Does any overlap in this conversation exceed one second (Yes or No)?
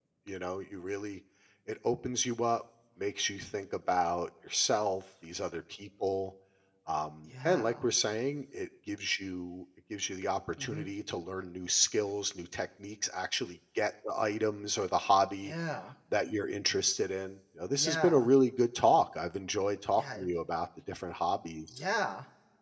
No